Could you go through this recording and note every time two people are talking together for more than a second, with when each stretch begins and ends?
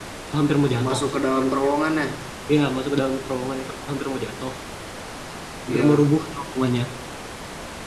none

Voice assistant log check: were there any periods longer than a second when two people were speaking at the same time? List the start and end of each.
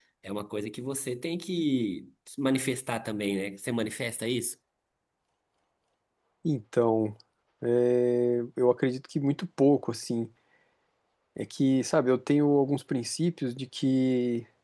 none

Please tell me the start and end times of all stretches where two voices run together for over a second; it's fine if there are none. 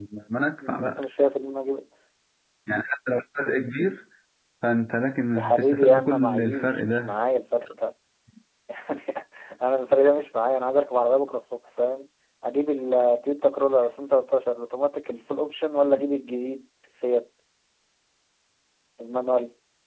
5.3-7.2

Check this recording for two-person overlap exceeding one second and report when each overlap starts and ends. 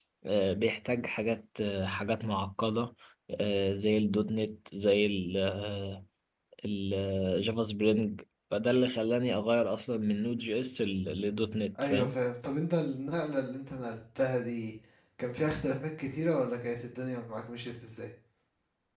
none

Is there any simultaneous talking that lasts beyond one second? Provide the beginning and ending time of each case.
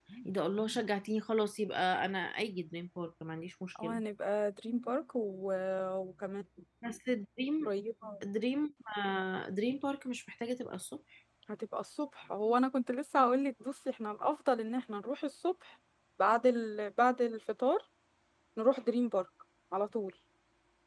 none

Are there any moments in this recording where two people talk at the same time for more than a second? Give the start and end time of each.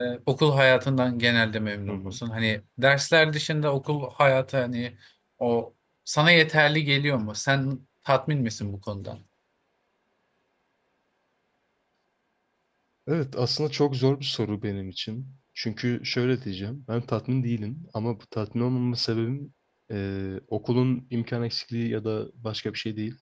none

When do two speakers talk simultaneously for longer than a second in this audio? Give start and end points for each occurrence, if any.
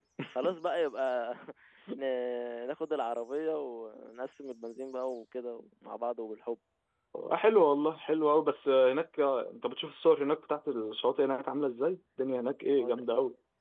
none

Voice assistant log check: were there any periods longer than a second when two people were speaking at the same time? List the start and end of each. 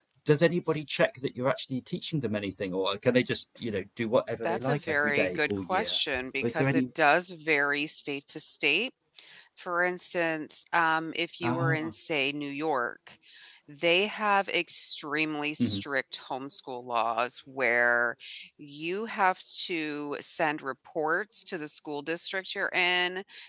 4.5-5.9

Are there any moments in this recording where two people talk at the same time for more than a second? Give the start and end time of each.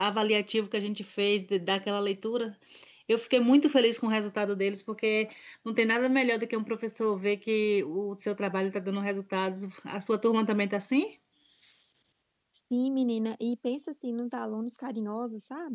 none

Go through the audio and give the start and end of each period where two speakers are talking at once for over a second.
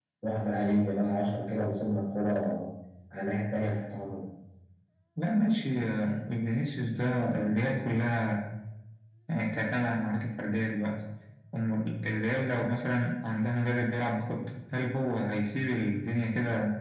none

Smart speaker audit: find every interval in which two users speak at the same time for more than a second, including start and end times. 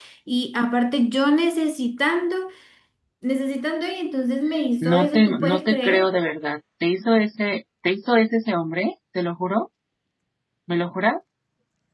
4.8-6.1

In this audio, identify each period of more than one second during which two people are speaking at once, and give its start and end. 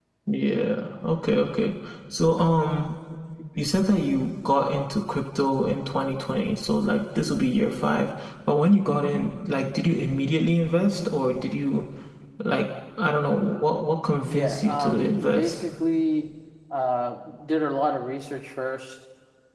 14.2-15.5

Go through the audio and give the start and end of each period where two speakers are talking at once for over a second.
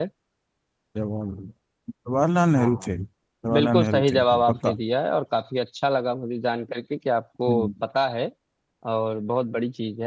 3.5-4.8

